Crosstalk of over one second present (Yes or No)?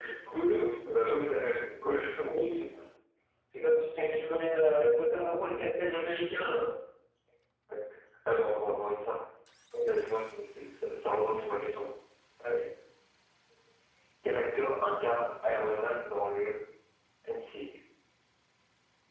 No